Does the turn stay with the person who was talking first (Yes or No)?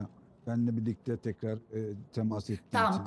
No